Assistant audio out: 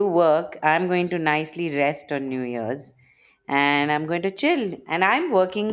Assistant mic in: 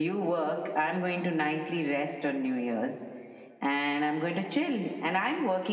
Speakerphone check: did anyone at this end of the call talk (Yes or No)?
No